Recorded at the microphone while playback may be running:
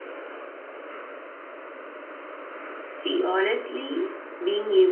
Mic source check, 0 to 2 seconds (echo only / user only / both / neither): neither